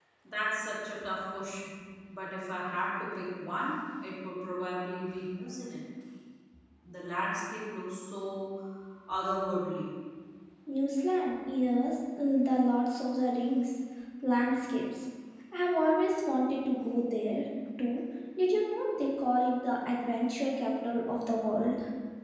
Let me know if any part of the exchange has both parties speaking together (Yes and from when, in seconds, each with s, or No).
No